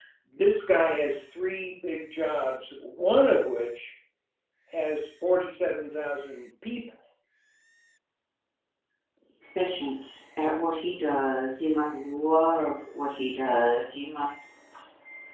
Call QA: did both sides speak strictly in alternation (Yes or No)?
Yes